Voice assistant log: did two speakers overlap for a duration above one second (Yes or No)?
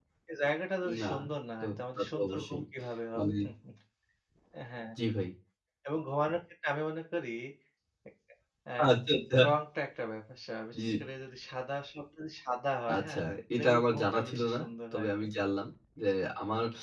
Yes